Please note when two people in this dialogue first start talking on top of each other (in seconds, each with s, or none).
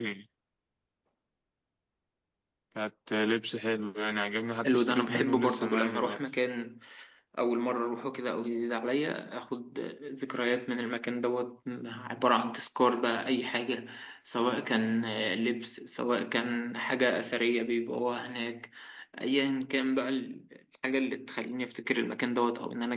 4.6 s